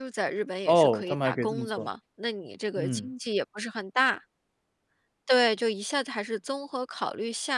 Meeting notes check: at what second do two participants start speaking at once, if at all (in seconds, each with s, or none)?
0.7 s